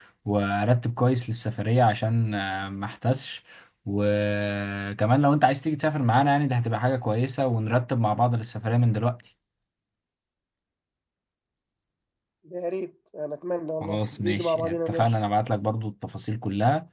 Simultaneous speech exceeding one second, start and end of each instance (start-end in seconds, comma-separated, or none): 13.8-15.1